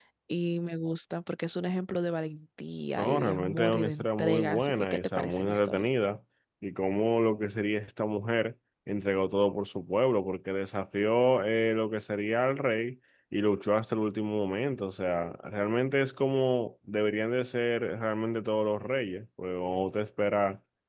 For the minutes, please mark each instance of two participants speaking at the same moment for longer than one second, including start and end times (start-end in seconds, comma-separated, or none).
3.0-5.9